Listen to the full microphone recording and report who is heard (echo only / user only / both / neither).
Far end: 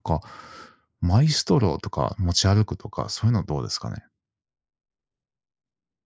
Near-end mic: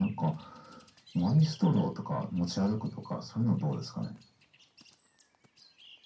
echo only